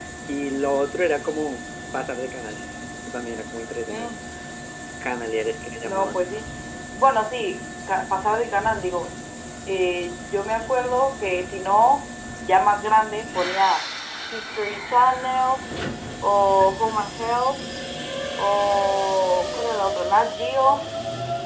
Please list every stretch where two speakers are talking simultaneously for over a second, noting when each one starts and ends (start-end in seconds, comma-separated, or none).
none